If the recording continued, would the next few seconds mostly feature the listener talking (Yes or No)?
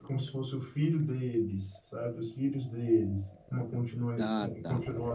No